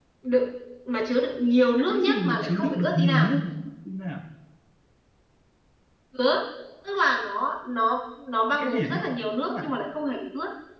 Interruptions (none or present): present